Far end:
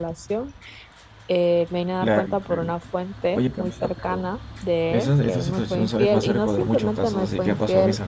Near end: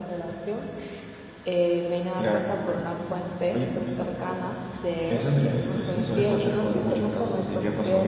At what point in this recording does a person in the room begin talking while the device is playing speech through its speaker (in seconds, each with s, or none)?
none